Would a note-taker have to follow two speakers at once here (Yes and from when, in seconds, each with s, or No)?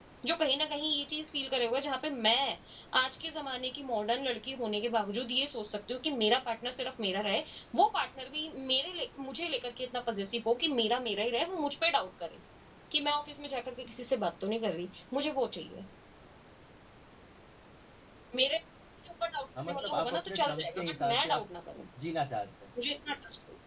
Yes, from 19.6 s